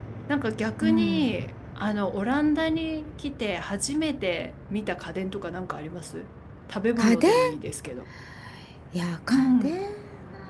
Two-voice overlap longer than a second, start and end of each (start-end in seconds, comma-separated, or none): none